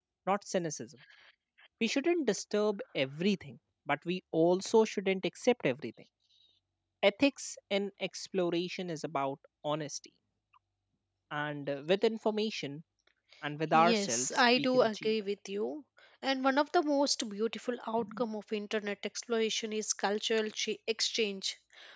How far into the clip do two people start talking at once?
13.7 s

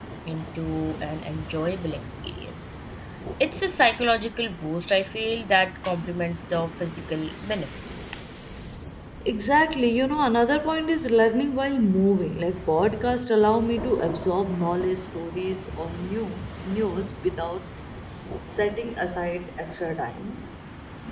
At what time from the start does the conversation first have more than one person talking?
none

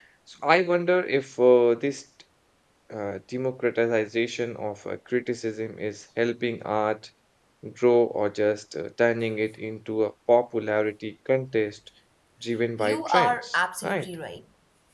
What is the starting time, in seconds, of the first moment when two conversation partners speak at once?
12.8 s

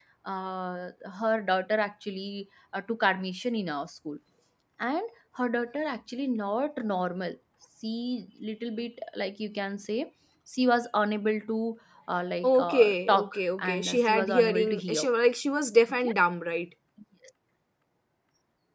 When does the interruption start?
12.4 s

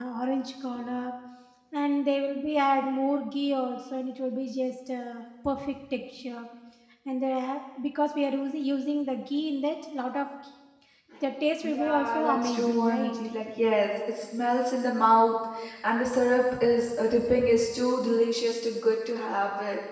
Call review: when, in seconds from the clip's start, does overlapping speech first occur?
11.6 s

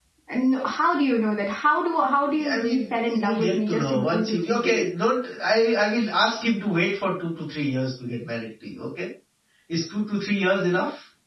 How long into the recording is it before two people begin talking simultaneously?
2.2 s

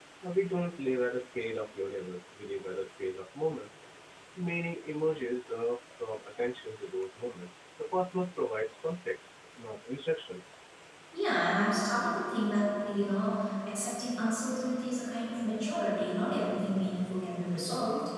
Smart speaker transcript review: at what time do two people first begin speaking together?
none

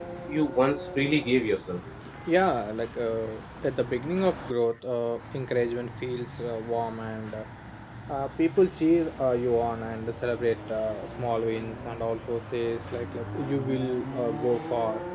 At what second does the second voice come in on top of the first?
none

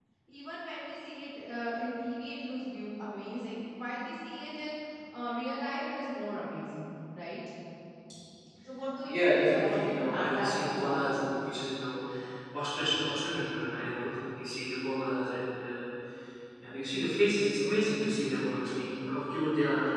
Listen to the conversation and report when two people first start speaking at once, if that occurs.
9.1 s

